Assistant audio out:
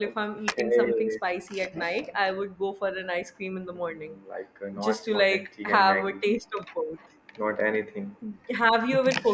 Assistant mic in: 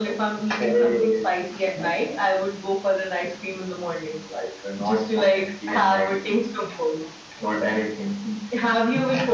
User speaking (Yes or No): No